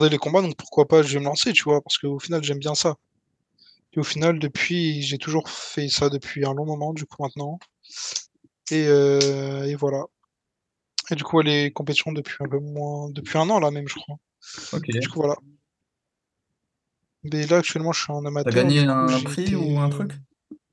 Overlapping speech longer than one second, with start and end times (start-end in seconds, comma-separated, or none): 18.5-20.0